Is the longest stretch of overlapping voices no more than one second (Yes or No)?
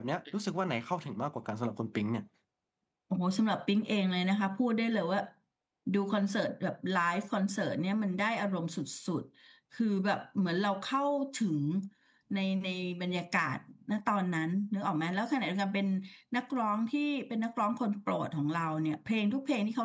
Yes